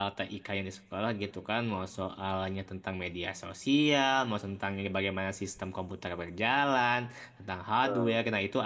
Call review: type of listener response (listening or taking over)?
listening